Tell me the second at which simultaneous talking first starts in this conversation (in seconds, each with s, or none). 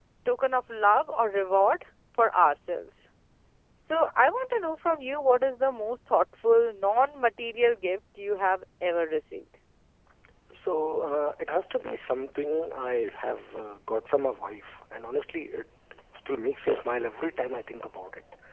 none